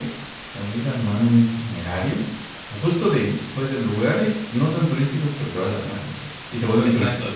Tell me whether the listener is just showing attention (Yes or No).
No